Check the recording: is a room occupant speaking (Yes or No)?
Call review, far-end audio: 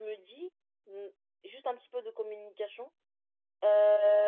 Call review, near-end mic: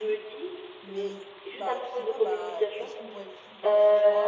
Yes